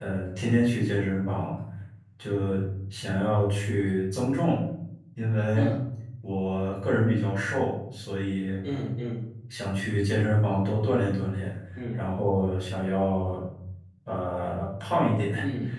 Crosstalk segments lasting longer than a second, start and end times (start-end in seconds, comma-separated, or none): none